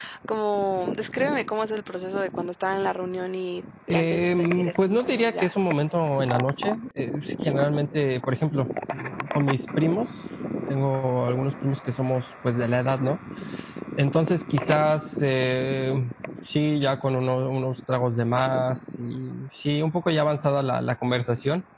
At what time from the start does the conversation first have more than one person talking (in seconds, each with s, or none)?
3.9 s